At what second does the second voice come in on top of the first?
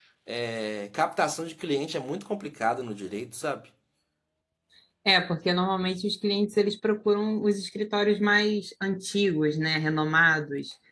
none

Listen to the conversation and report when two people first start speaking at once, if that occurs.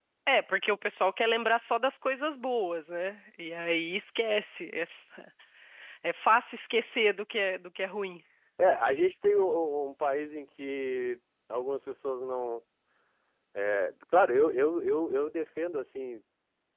none

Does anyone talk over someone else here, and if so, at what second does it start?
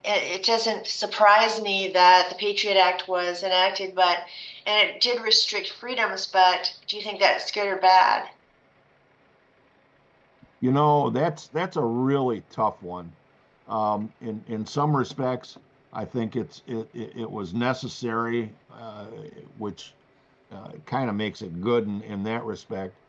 none

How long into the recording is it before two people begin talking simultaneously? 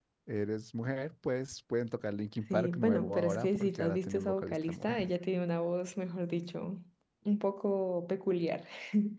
2.5 s

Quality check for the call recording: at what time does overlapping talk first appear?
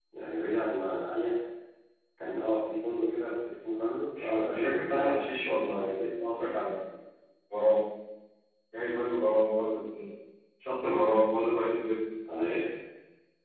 4.2 s

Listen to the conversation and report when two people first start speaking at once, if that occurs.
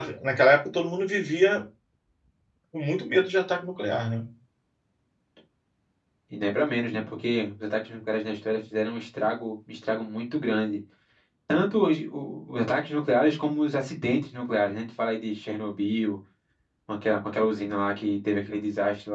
none

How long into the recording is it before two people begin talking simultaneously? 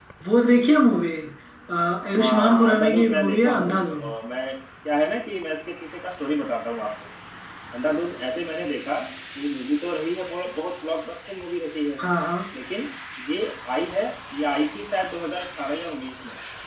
2.1 s

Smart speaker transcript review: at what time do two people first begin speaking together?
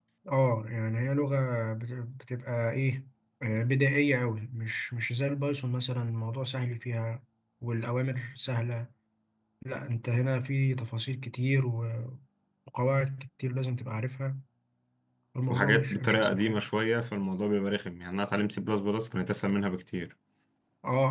15.5 s

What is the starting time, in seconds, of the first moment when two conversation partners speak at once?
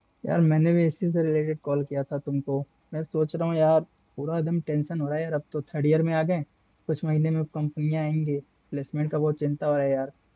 none

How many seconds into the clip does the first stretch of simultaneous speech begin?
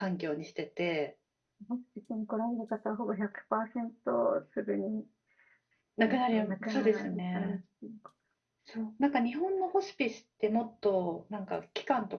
6.3 s

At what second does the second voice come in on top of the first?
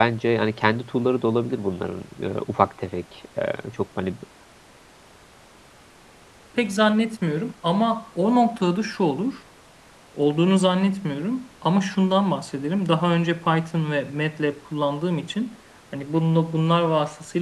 none

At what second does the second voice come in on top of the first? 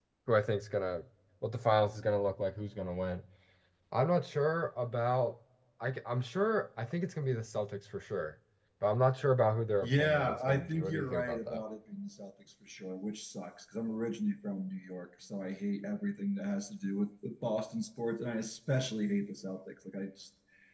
9.8 s

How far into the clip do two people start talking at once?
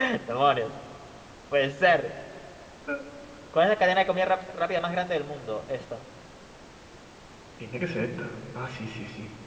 none

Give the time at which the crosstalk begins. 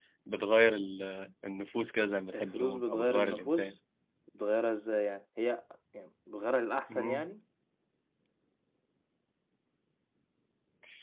2.3 s

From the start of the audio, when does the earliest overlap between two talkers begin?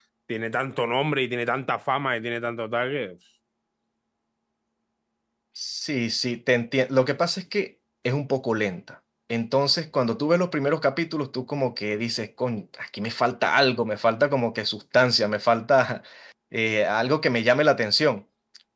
none

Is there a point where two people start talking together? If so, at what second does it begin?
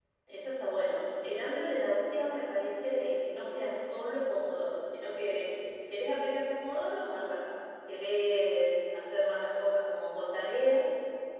none

